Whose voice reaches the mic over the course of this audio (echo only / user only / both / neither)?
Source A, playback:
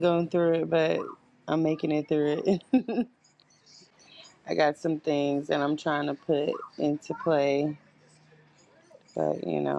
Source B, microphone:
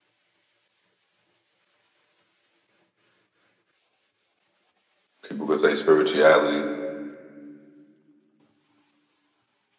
user only